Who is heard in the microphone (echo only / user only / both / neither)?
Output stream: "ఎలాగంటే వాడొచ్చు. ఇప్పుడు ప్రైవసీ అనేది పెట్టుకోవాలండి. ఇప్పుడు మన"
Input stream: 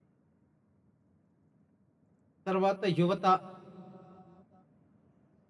user only